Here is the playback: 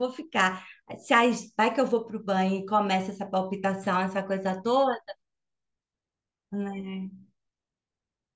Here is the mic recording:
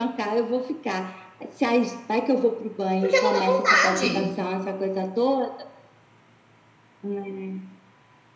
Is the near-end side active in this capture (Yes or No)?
Yes